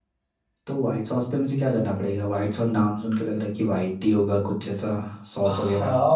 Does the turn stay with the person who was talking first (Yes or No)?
No